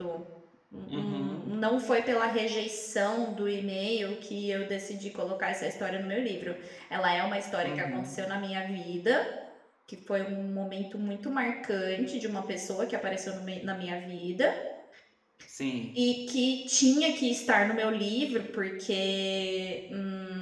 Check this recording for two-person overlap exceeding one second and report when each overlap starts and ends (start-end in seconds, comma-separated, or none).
none